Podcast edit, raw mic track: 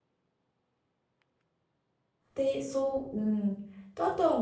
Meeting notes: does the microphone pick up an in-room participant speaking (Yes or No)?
Yes